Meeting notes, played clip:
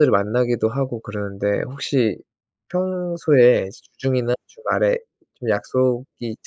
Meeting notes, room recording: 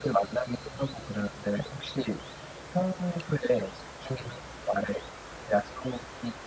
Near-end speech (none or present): none